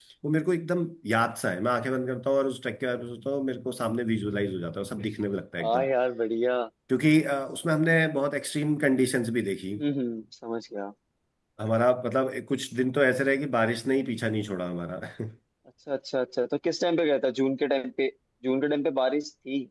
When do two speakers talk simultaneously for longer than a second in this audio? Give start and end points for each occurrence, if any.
none

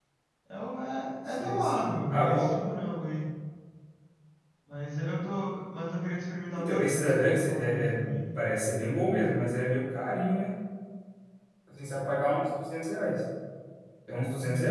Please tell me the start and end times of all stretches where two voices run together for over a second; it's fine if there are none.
1.3-2.5, 6.5-8.1

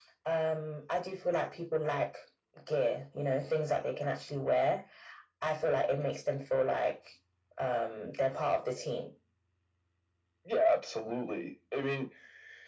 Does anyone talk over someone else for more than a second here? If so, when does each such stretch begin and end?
none

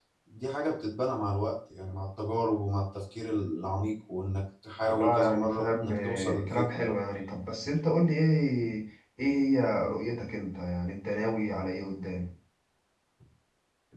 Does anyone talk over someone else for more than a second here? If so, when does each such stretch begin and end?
4.8-7.0

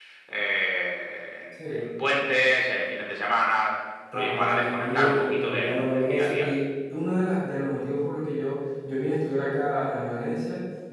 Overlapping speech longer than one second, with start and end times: 4.1-6.5

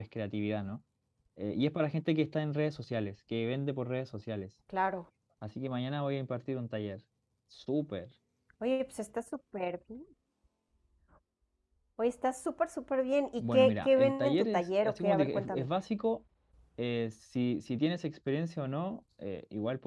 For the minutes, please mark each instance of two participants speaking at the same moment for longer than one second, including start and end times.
13.4-15.7

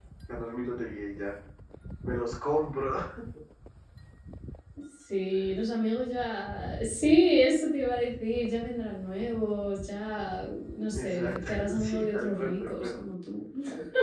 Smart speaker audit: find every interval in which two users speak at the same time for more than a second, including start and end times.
10.9-13.0

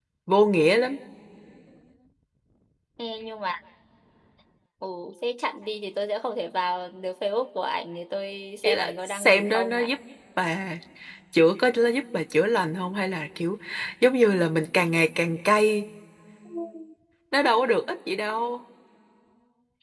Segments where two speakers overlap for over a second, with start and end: 8.6-9.9

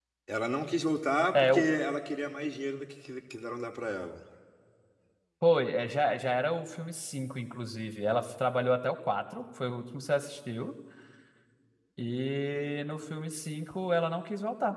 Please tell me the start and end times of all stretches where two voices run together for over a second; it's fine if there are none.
none

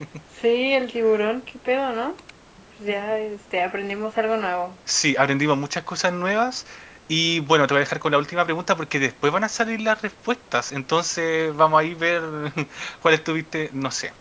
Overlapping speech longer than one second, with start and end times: none

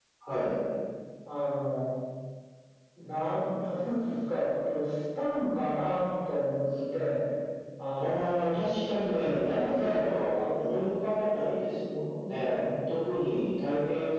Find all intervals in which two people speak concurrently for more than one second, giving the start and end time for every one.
9.1-10.3

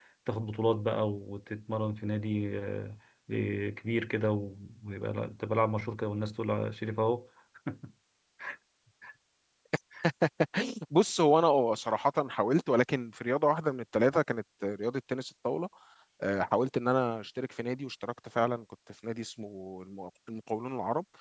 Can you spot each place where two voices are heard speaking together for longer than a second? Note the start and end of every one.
none

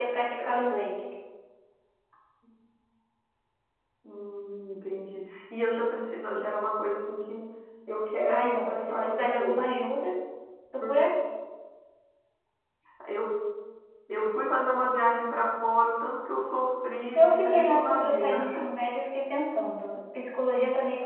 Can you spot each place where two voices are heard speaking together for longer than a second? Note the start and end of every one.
8.3-9.6, 17.2-18.5

